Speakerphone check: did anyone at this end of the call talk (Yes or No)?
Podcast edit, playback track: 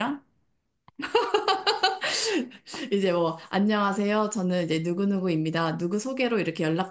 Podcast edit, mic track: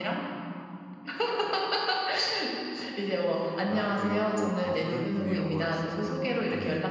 Yes